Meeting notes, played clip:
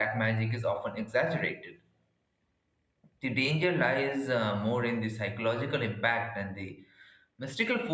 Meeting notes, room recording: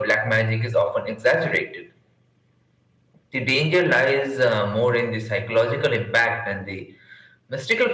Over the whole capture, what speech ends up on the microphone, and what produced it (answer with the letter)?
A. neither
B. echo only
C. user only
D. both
B